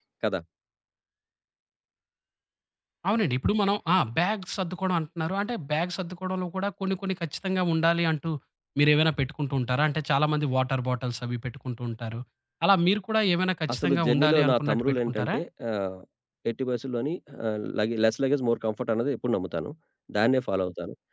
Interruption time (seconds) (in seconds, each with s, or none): 13.7 s